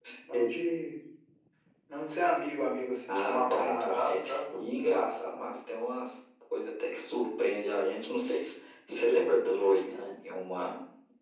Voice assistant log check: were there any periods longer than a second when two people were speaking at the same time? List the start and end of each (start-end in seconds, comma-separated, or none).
3.1-4.4